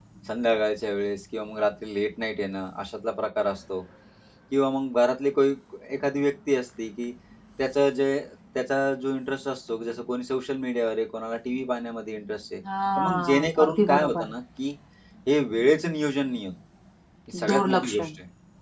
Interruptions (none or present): present